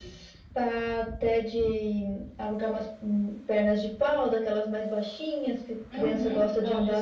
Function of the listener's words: taking over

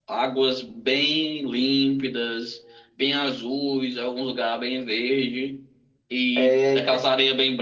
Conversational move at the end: listening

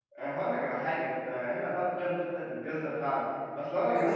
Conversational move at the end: taking over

